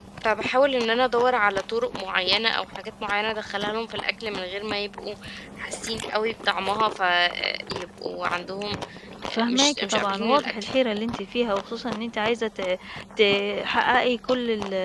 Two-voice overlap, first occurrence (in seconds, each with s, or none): 9.3 s